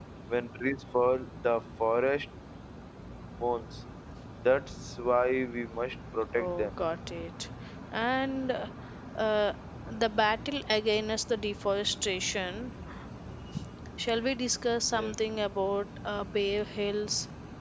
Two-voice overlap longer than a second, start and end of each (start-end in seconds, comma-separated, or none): none